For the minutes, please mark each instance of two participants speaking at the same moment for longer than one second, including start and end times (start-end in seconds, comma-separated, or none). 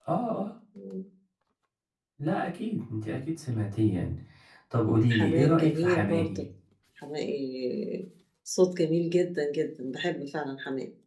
5.1-6.4